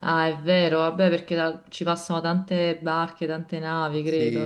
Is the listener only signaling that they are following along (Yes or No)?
No